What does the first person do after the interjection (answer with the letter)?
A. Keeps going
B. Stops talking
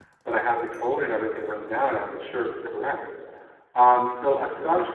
A